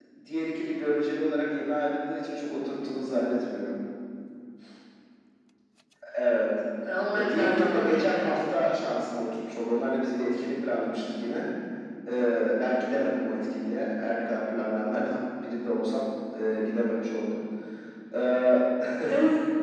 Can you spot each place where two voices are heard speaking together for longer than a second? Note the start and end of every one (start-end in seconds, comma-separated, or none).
7.1-8.6